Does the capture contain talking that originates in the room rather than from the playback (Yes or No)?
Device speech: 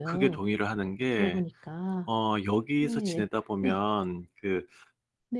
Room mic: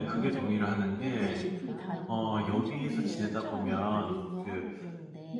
Yes